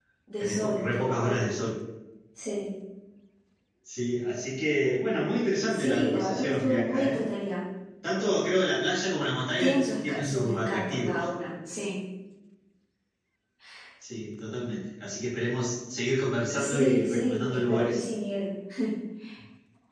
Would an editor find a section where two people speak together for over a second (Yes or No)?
Yes